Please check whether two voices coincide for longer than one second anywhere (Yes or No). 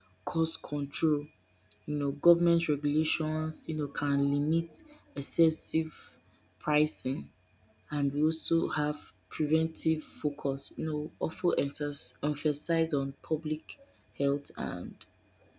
No